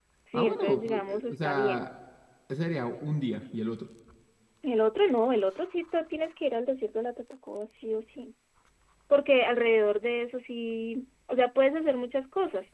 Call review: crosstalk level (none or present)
present